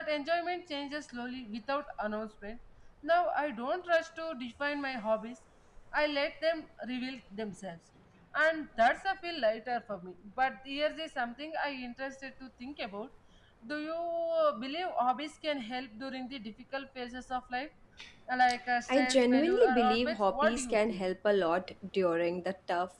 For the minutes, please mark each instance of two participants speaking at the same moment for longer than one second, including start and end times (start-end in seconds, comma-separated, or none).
18.9-21.0